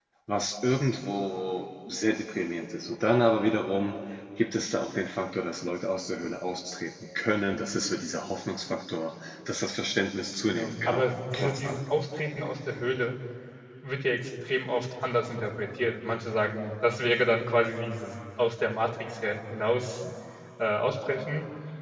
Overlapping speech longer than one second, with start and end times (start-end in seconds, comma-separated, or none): 10.5-11.8